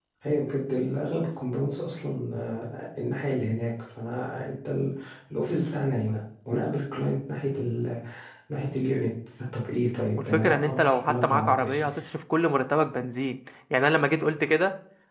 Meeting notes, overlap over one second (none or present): present